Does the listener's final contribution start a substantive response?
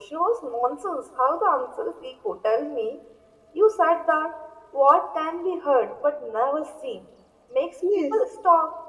No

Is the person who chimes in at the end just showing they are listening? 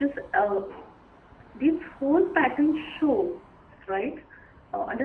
Yes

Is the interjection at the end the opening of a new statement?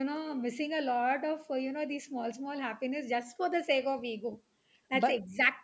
No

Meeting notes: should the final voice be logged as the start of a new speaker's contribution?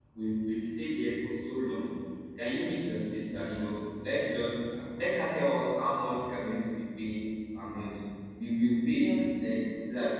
No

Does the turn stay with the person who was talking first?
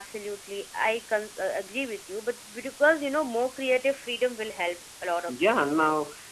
No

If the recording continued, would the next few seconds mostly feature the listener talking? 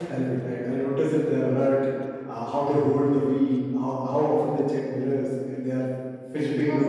Yes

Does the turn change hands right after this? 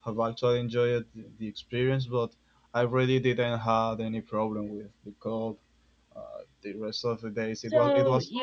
Yes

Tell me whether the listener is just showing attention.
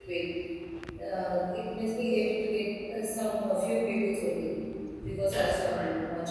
Yes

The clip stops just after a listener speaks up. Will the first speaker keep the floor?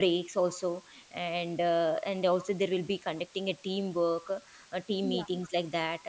Yes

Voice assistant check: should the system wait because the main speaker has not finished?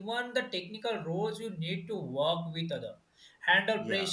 Yes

